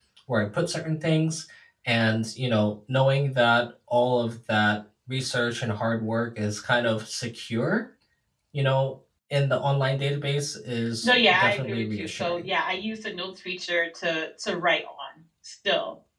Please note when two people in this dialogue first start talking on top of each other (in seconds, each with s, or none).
11.0 s